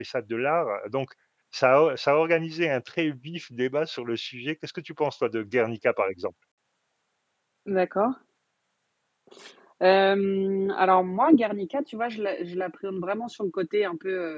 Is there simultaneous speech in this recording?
No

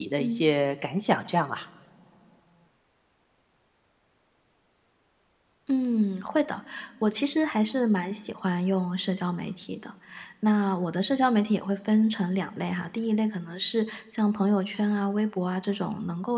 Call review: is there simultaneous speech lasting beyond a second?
No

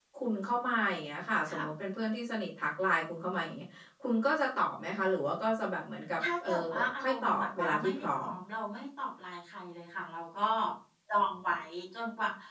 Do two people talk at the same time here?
Yes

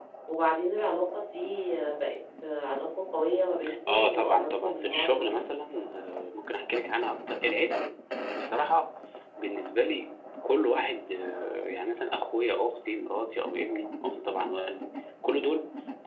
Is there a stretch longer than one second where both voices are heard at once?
Yes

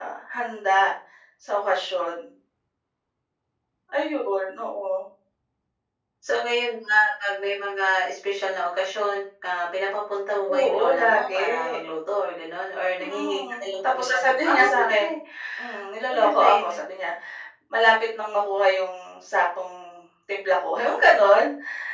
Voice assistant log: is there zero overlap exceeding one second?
No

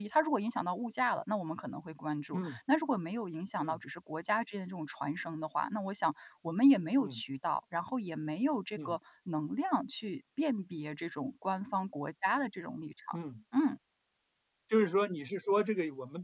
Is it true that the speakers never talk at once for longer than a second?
Yes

